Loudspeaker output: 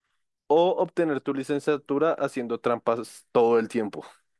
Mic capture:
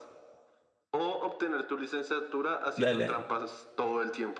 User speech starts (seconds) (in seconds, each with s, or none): 2.8 s